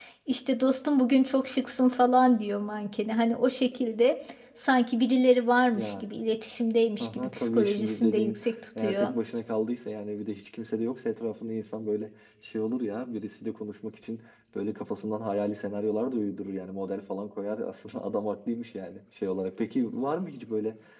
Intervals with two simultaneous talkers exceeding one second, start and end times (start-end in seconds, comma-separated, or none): 7.0-8.4